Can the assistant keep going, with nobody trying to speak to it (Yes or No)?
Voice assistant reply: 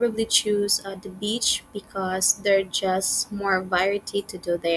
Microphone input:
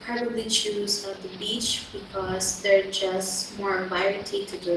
Yes